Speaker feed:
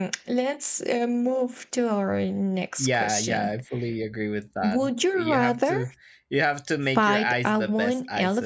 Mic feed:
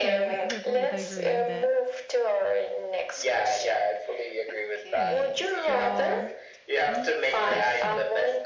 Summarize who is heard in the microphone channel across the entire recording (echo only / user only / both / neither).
both